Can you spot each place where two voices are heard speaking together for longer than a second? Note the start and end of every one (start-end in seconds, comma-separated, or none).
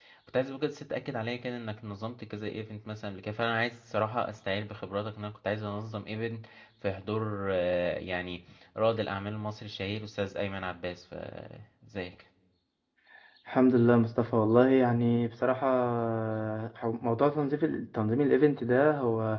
none